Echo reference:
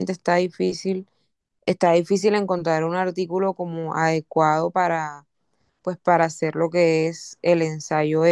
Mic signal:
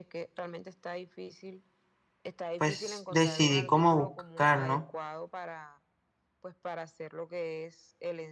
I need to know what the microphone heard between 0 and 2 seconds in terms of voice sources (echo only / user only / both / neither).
echo only